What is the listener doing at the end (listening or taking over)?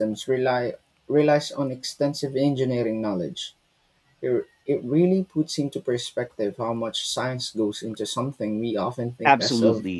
taking over